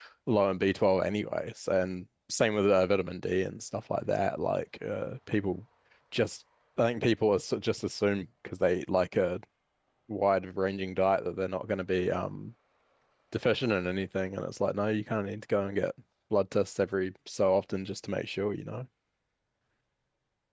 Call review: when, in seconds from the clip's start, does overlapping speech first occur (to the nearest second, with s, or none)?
none